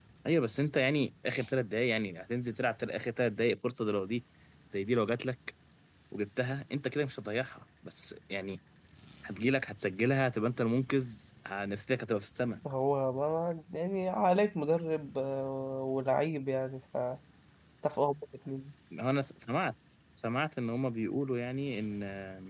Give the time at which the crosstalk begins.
none

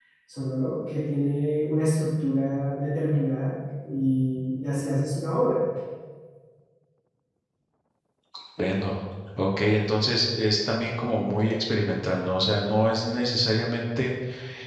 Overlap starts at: none

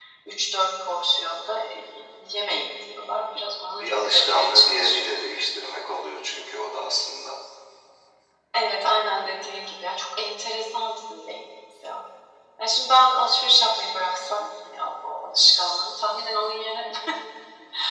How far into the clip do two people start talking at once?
3.8 s

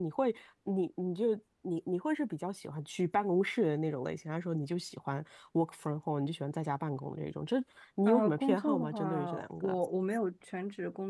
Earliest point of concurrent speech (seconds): 8.1 s

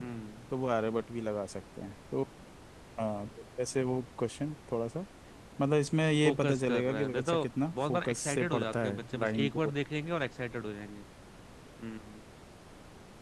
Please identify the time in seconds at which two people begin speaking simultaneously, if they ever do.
6.2 s

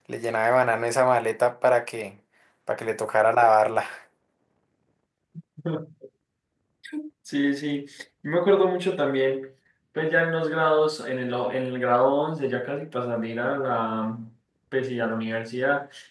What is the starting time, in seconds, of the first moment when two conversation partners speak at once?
none

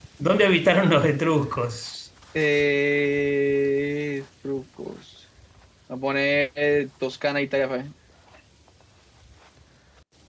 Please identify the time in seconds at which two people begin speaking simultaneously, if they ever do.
none

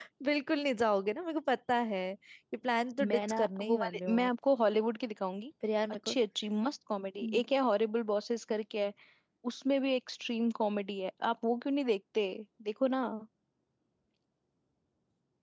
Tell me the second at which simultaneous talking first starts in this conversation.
3.0 s

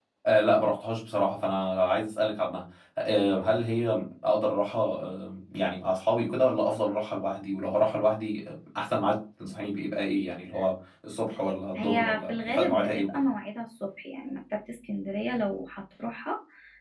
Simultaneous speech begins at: 11.8 s

